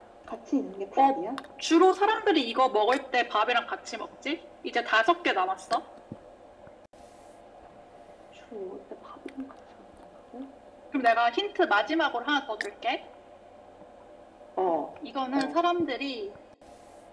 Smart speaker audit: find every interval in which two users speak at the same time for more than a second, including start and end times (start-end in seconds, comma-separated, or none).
none